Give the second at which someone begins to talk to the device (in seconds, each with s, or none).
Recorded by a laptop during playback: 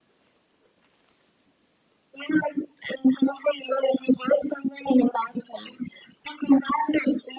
none